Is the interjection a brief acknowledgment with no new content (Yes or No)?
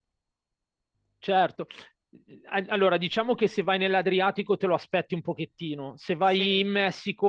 Yes